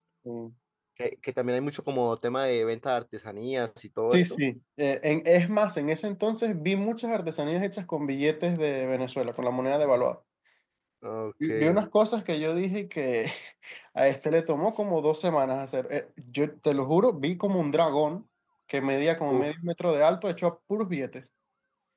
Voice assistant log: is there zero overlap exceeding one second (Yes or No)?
Yes